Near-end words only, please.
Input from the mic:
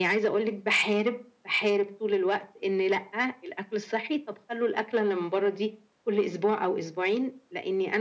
none

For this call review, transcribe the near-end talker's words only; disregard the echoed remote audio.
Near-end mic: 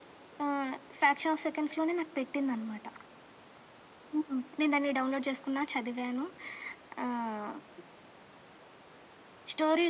none

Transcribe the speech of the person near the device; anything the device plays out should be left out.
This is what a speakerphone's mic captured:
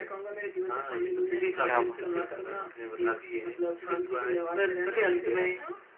क्या बा

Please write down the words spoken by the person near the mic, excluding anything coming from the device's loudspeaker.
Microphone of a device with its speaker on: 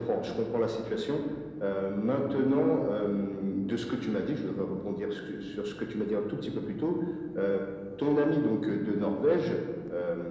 none

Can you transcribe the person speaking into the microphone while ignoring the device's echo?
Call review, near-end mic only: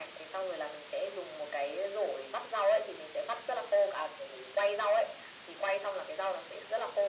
none

